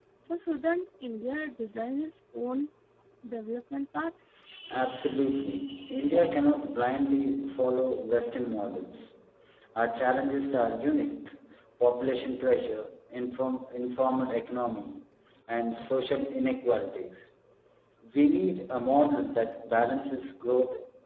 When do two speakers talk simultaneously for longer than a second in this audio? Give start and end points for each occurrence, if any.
none

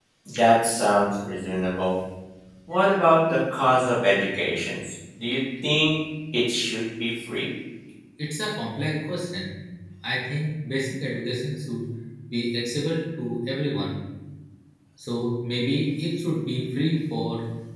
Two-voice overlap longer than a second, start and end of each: none

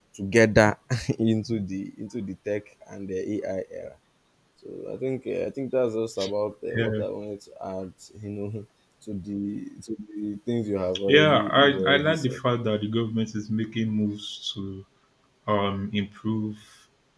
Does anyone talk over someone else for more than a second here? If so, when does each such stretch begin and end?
11.1-12.4

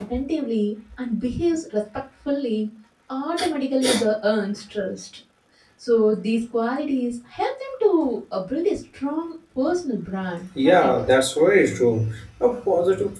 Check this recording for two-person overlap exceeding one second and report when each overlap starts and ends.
none

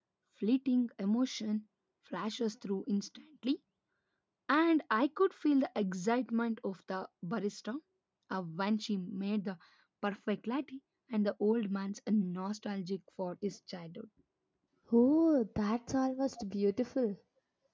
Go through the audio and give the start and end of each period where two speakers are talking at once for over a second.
none

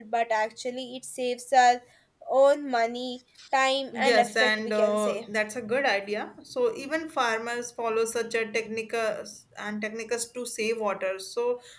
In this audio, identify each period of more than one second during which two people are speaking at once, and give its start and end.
3.9-5.2

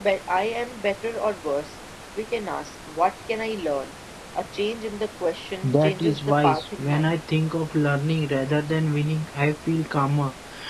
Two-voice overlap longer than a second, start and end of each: 5.6-7.1

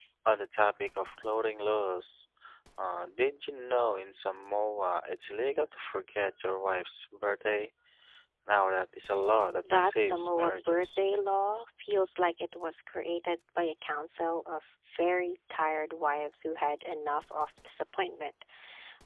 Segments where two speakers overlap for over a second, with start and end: 9.7-11.0

